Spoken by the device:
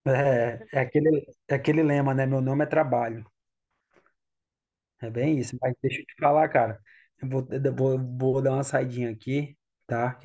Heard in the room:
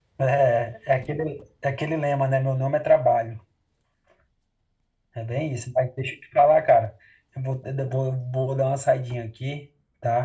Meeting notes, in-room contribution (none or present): none